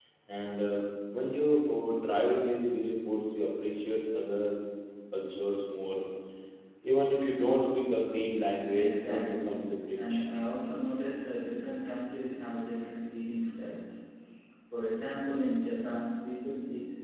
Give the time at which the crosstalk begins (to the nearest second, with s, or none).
9 s